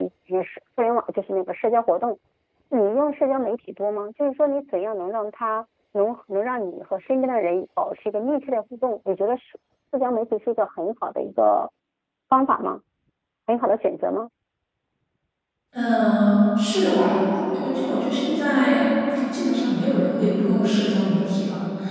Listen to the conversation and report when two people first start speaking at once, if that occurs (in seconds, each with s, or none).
none